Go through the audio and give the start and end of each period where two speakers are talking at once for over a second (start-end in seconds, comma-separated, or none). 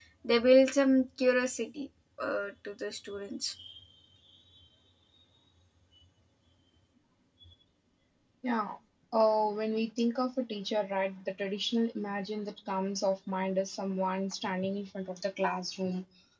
none